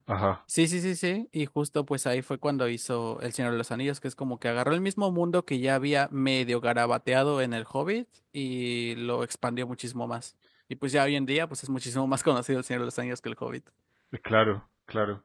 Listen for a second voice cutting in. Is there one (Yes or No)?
No